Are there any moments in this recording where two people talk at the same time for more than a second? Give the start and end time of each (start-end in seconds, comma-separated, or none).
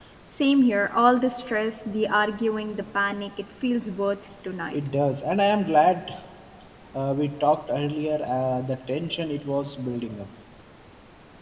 none